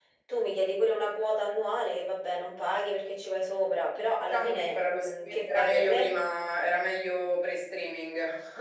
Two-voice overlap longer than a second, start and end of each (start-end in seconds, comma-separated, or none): 4.3-6.1